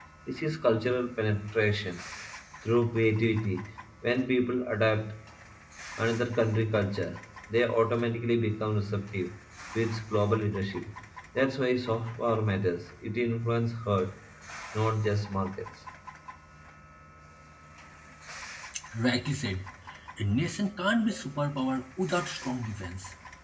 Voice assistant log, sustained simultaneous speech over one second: none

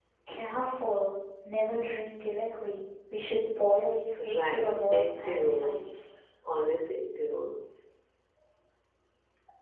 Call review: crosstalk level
present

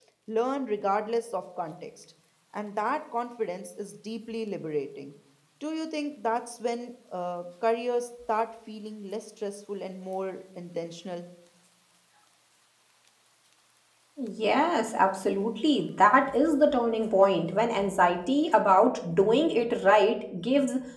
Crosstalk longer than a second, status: none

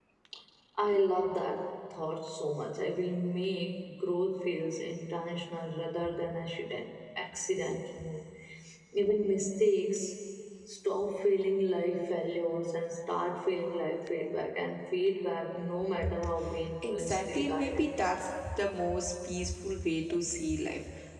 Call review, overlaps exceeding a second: present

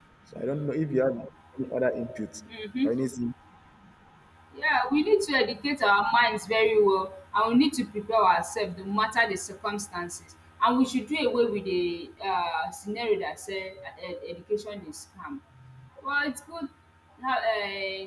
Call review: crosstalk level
none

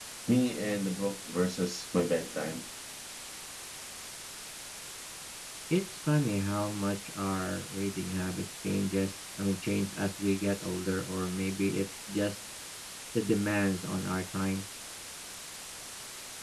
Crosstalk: none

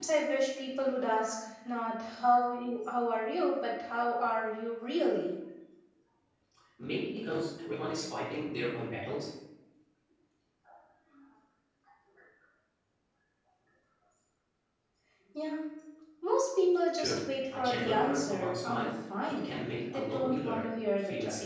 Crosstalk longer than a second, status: present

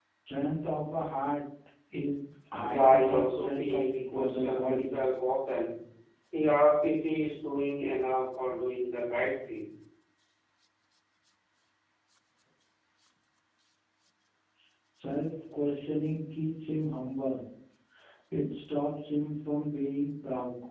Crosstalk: present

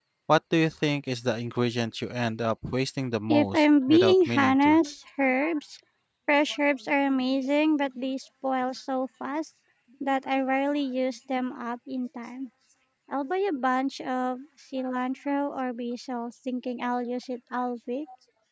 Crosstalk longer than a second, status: present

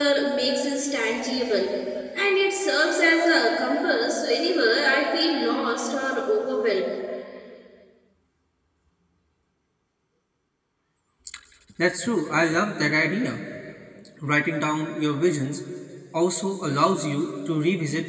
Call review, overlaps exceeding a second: none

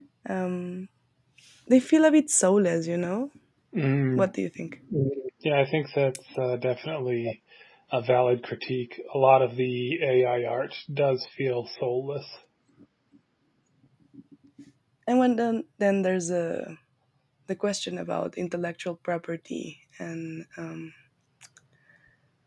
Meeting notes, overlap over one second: none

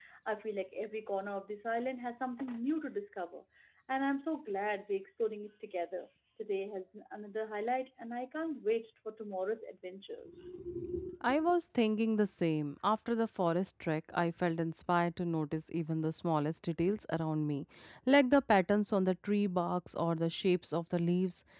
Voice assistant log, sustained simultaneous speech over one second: none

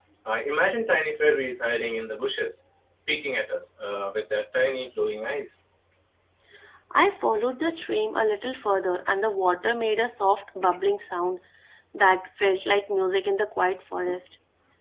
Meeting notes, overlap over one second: none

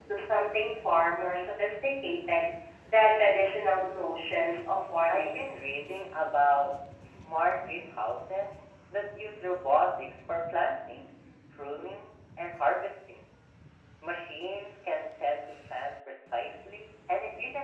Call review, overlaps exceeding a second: none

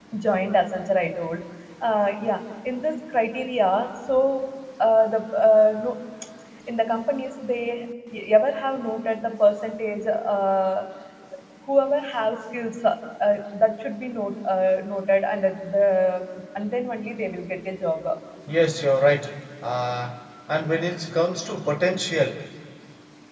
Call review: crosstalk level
none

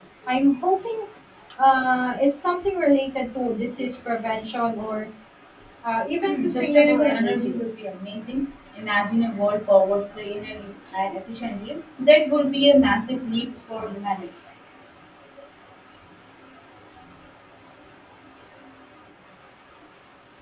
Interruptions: present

